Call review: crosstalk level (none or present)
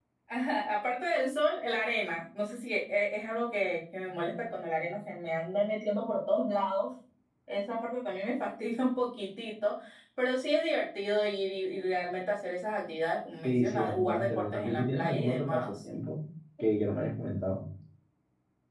present